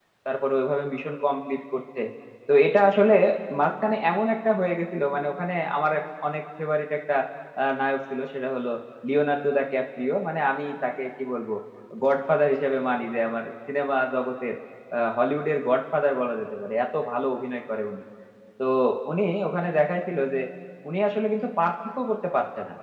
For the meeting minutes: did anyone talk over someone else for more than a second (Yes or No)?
No